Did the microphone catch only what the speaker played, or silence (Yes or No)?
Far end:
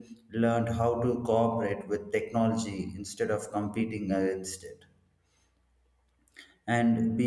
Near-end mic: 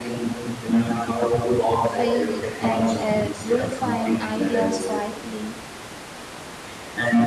No